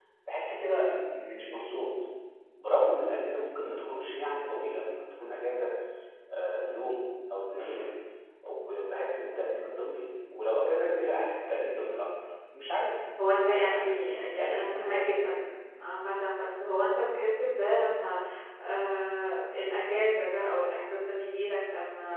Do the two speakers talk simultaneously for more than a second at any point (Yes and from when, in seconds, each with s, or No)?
Yes, from 13.2 s